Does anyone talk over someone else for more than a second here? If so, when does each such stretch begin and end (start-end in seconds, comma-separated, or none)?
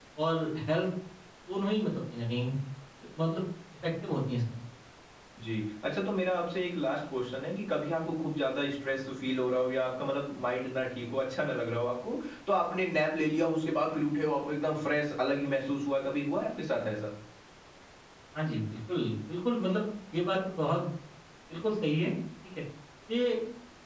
none